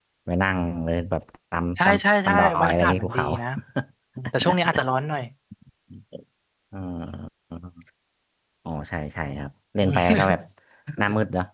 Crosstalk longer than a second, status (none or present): present